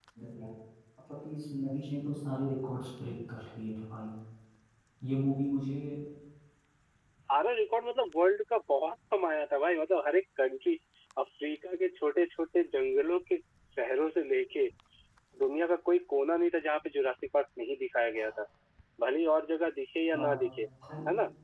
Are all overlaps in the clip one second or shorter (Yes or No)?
Yes